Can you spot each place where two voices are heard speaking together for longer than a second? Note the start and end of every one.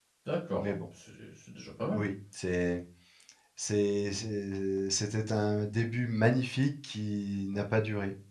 none

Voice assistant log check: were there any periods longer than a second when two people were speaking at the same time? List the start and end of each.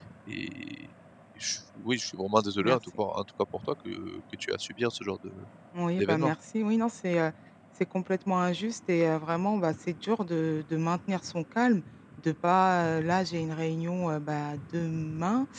none

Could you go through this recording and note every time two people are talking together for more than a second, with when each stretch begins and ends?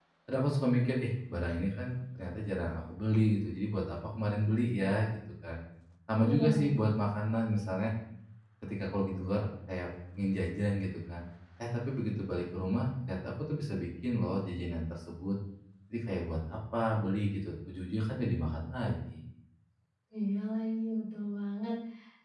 none

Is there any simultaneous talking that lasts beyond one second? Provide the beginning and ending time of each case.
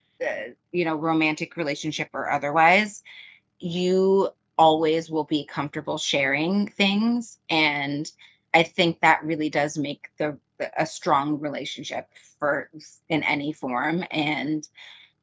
none

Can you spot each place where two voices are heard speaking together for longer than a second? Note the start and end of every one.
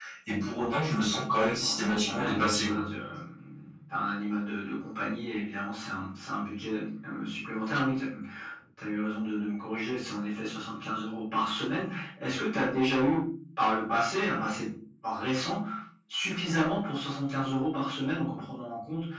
1.3-2.8

